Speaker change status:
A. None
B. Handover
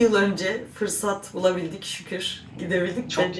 A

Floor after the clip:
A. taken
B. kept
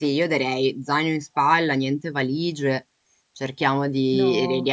B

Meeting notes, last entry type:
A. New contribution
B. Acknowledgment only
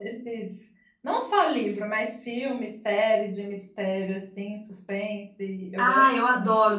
A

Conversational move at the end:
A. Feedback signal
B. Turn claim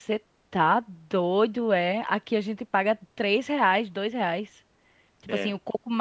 A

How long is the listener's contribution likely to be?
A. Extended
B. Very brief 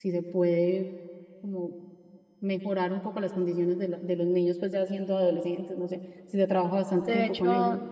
A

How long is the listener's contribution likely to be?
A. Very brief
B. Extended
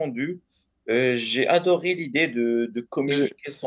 A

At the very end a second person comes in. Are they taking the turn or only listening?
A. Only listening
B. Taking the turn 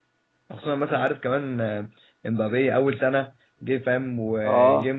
A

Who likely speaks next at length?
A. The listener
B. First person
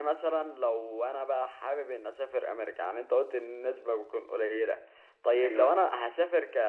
B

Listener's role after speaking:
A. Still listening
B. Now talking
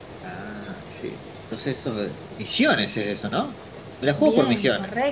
B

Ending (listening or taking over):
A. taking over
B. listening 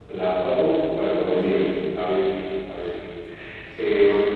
B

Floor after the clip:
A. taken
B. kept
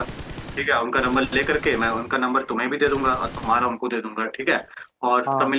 B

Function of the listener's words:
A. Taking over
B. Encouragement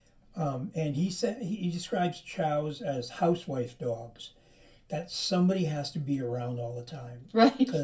B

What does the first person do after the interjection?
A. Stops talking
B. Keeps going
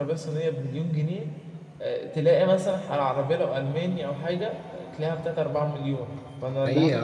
A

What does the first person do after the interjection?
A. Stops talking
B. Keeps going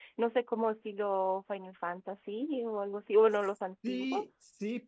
A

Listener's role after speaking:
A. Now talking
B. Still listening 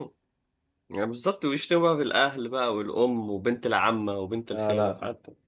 A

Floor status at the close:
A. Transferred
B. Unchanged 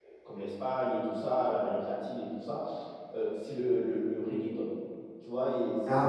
B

